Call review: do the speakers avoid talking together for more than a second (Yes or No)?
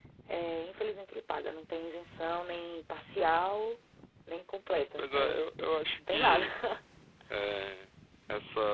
No